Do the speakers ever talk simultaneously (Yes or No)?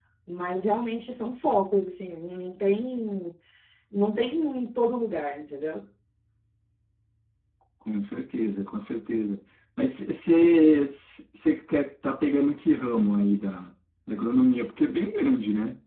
No